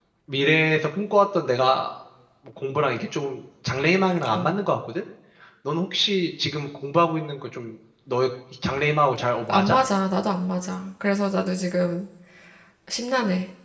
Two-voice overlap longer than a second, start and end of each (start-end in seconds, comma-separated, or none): none